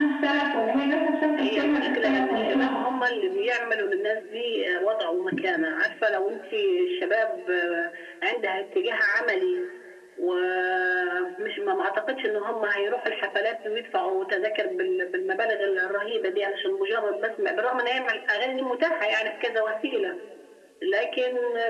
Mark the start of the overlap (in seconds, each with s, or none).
1.4 s